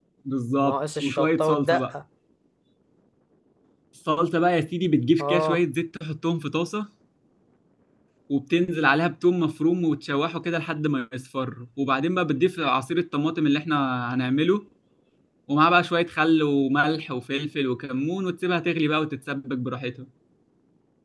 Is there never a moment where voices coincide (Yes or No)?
No